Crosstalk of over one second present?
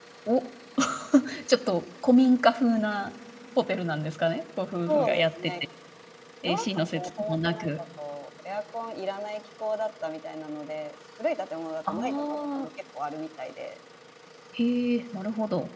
Yes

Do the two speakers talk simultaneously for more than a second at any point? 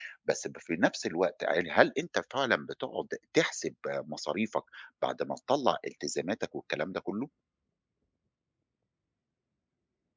No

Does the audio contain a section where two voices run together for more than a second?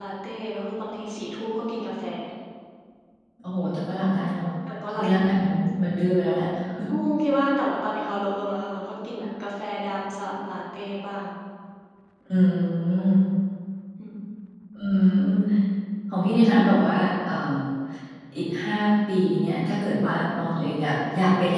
No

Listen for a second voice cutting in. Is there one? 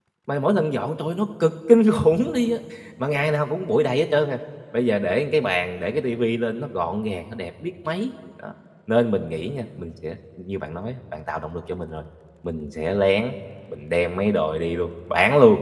No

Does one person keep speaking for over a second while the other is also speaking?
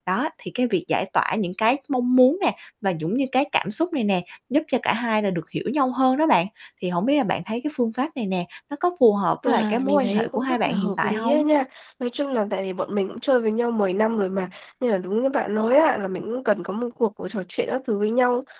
Yes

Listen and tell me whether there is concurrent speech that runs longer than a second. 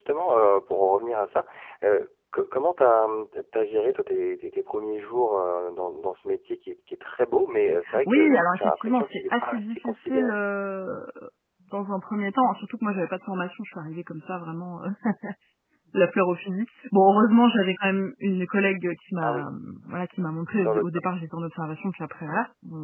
Yes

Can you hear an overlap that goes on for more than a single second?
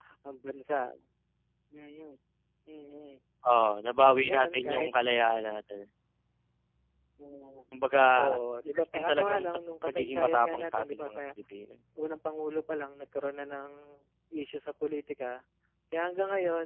Yes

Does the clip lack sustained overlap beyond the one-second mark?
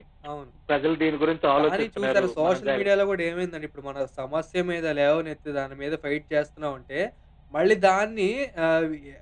No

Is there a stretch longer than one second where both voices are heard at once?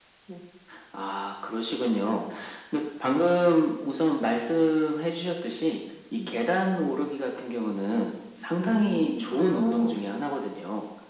Yes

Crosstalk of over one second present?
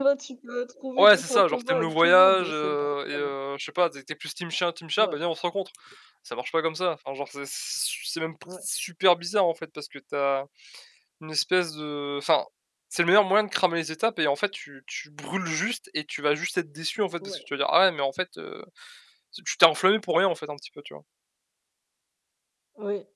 Yes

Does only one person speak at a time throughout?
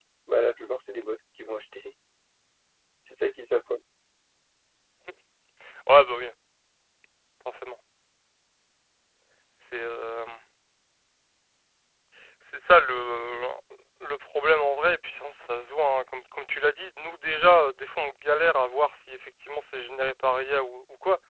Yes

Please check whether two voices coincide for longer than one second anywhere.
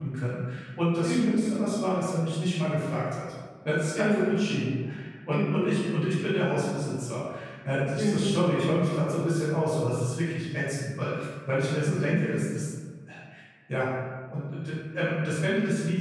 No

